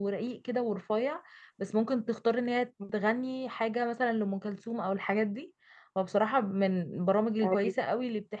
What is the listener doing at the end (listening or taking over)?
listening